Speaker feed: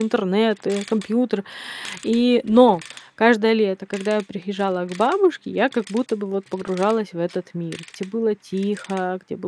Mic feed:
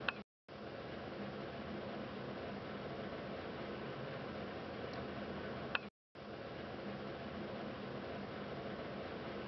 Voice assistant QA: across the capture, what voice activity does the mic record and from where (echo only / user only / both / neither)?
neither